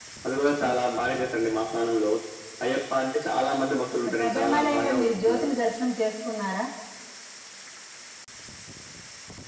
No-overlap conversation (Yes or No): No